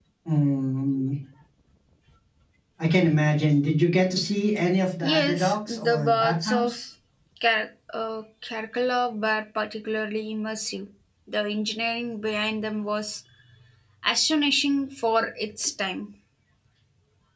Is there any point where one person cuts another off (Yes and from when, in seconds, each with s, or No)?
Yes, from 5.0 s